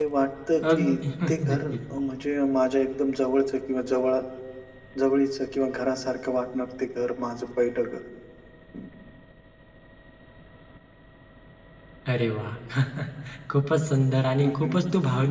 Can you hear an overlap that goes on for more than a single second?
No

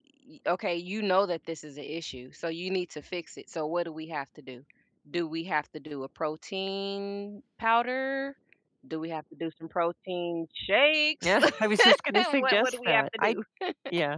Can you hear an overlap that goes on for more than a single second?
Yes, from 11.2 s

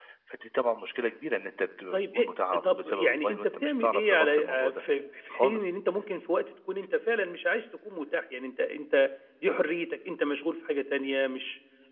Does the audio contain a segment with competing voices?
Yes, from 1.9 s

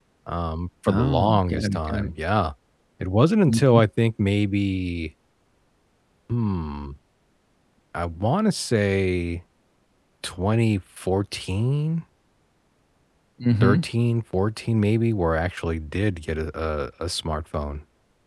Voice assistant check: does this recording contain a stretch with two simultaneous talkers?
Yes, from 0.9 s

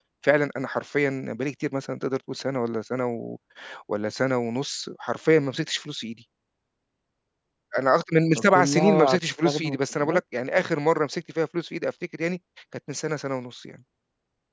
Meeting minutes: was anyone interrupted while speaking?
Yes, from 8.5 s

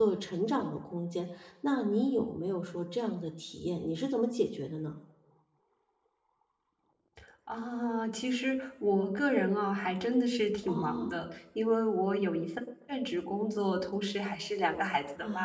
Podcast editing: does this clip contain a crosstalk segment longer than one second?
No

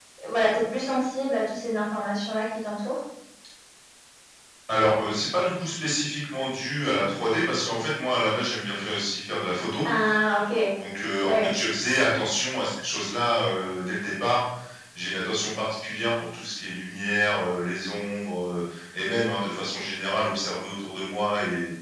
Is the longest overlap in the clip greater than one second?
No

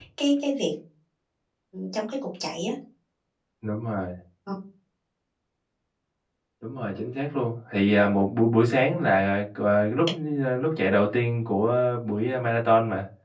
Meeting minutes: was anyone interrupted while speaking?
No

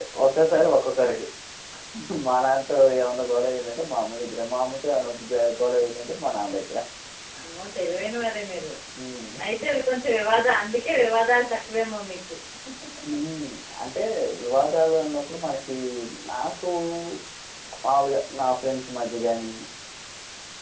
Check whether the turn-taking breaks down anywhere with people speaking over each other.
No

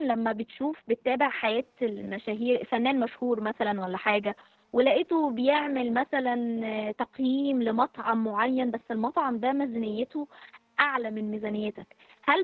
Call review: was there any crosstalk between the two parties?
No

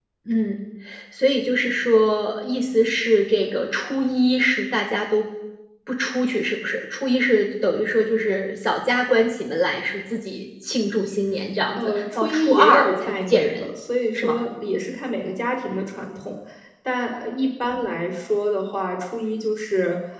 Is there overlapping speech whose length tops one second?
Yes, from 11.8 s

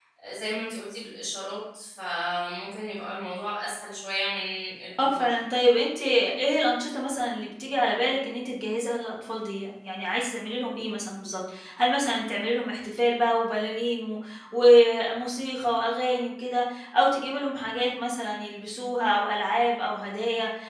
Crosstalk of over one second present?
No

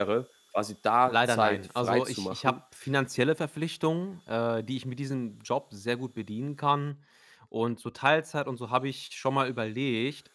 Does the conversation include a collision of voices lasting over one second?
Yes, from 1.1 s

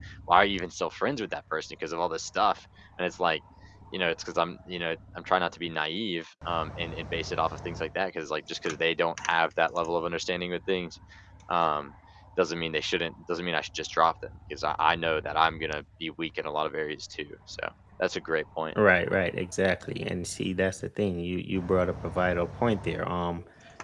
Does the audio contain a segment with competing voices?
No

